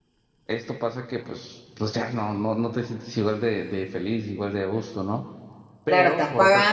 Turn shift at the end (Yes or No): Yes